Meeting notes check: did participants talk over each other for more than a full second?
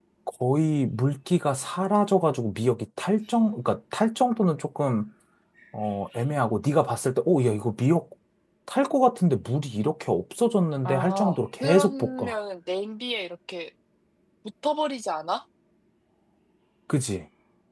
Yes, from 10.8 s

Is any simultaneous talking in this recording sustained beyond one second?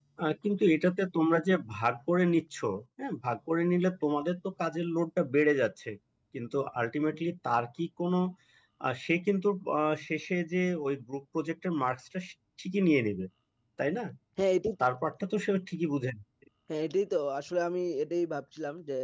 No

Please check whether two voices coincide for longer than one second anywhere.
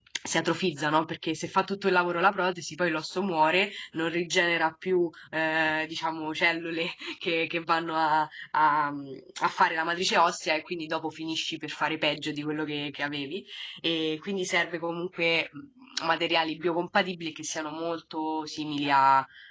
No

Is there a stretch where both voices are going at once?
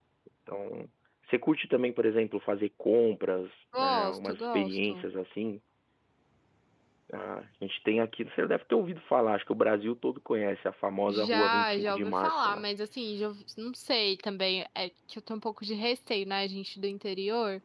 Yes, from 3.7 s

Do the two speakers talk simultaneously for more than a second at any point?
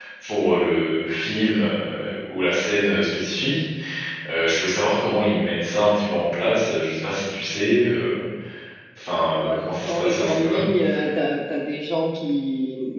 Yes, from 9.4 s

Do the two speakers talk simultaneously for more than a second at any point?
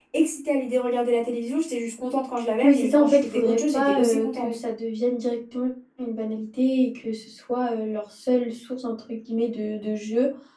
Yes, from 2.6 s

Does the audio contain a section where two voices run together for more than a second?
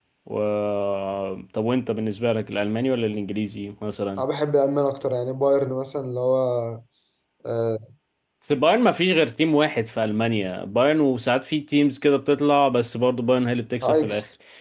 No

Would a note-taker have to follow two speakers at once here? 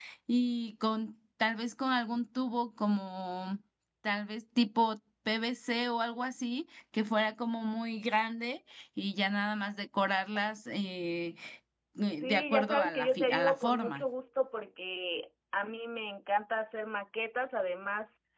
Yes, from 12.2 s

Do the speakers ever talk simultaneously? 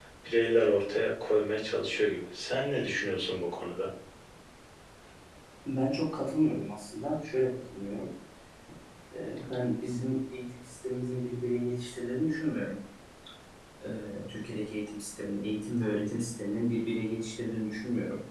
No

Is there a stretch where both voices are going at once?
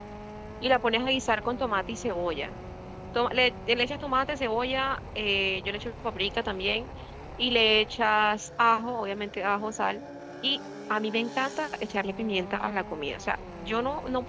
No

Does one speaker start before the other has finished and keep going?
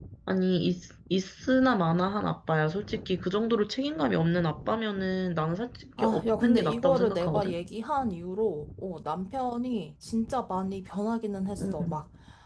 Yes, from 6.0 s

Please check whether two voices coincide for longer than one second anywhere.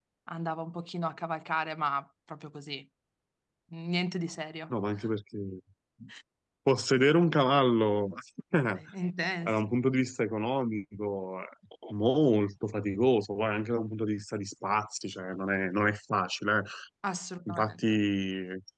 No

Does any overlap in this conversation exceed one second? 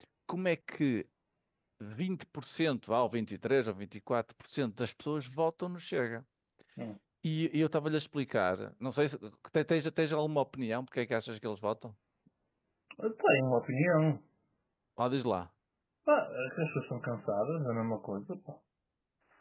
No

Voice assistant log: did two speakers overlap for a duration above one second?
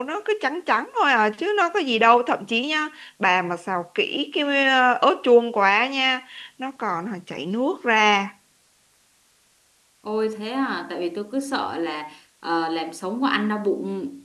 No

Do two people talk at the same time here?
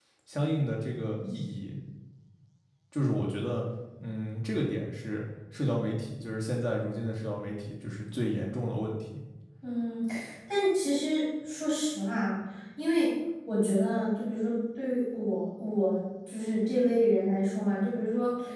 No

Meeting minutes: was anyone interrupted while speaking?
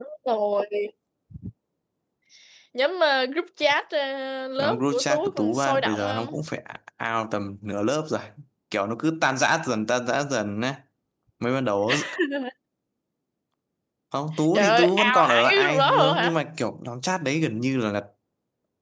Yes, from 4.6 s

